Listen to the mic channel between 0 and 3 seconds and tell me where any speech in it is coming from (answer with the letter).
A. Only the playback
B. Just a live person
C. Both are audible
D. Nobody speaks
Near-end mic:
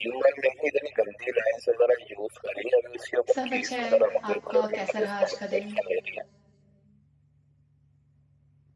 A